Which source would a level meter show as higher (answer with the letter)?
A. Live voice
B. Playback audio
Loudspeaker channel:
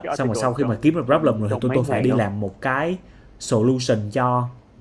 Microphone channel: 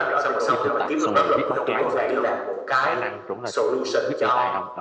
B